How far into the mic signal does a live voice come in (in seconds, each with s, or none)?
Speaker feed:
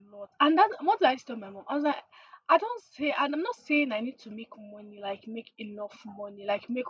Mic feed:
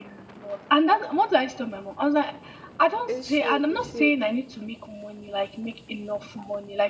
3.0 s